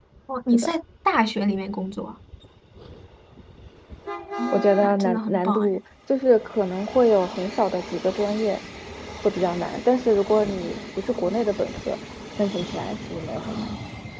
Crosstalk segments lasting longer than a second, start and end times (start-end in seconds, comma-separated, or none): 4.5-5.8